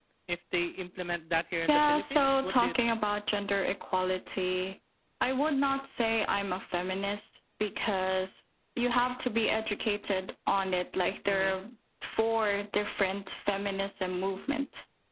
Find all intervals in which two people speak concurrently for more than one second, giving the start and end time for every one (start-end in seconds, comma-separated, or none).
1.7-3.0